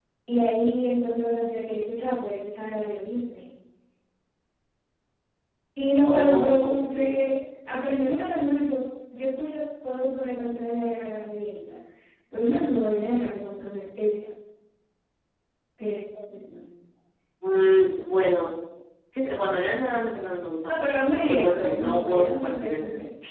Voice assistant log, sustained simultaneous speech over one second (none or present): present